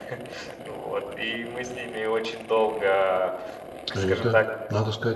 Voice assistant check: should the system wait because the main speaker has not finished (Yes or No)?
No